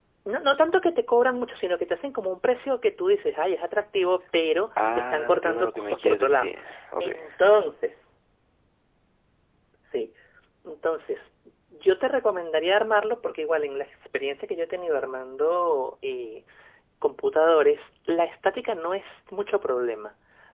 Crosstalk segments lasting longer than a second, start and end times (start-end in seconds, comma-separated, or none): 5.0-6.5